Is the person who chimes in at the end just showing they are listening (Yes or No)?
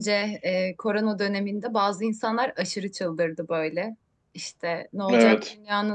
Yes